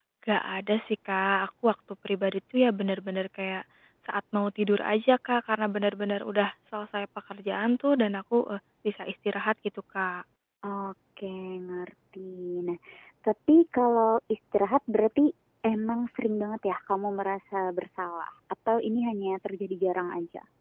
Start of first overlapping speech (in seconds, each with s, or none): none